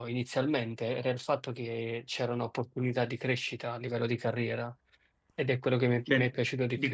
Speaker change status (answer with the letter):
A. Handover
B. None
A